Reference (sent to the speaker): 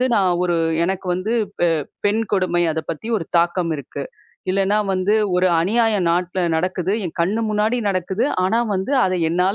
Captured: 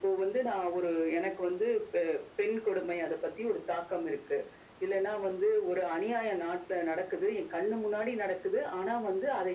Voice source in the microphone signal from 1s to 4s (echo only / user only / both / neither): echo only